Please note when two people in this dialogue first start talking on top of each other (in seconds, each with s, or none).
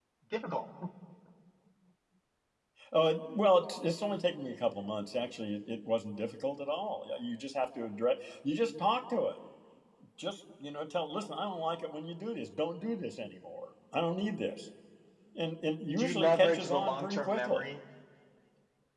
16.0 s